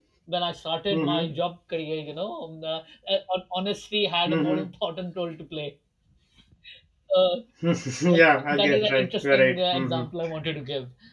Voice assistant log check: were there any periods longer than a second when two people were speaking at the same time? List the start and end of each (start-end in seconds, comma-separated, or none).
8.5-10.0